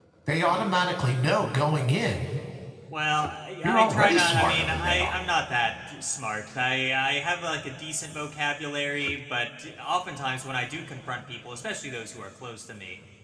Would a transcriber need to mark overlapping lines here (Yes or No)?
Yes